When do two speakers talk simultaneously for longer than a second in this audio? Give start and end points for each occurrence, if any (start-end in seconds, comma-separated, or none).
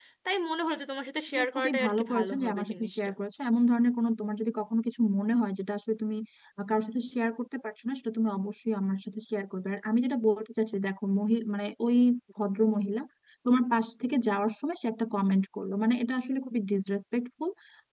1.3-3.0